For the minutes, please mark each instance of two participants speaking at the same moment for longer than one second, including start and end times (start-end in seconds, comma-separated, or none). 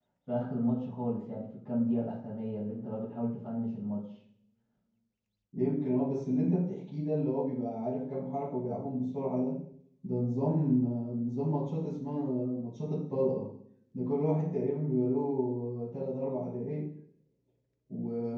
none